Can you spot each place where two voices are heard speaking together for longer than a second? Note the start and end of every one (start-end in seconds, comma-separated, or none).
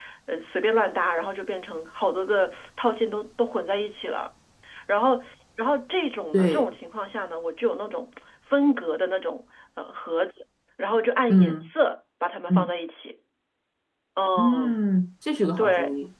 none